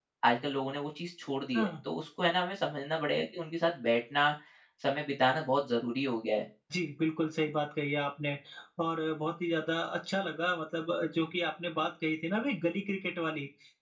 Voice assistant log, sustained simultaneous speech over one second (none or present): none